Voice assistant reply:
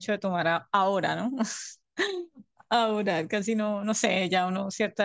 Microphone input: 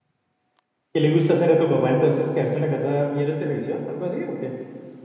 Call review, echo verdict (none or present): none